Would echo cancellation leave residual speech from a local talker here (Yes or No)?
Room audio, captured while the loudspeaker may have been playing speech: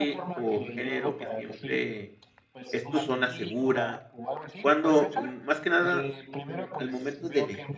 Yes